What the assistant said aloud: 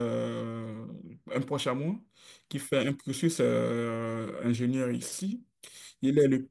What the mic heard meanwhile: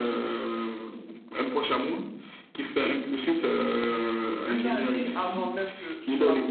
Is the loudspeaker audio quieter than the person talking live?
No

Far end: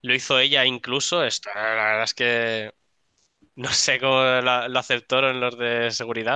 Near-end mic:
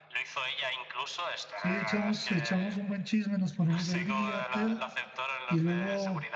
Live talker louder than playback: Yes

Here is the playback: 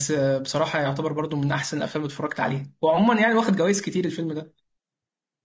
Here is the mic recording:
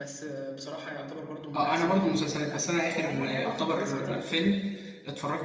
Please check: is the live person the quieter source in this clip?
No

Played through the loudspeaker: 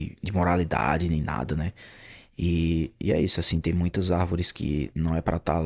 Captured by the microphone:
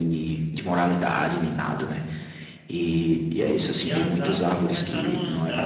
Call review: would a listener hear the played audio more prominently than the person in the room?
Yes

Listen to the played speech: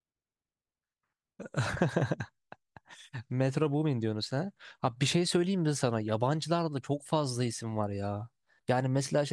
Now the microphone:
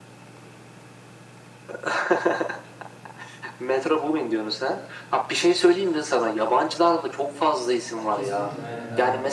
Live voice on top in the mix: No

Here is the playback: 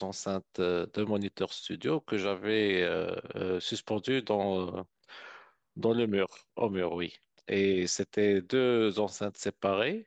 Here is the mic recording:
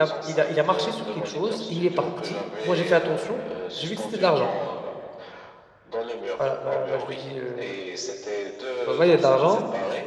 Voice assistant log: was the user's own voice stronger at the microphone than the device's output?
Yes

